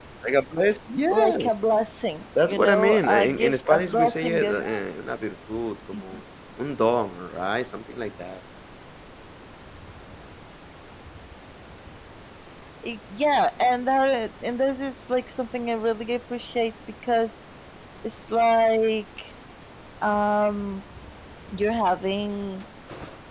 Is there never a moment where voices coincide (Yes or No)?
No